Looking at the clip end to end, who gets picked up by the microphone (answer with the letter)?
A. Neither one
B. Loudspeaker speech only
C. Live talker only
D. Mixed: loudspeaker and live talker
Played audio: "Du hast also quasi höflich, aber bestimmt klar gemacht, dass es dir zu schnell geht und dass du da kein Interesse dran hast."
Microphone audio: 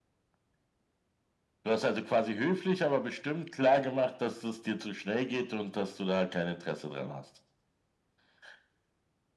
B